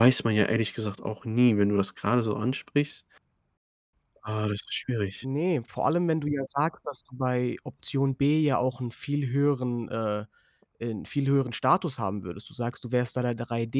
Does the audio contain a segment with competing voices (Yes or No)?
No